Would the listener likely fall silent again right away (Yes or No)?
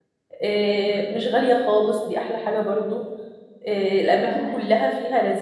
Yes